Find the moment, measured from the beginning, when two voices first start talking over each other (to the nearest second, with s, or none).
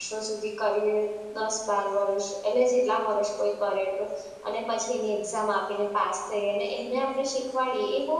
none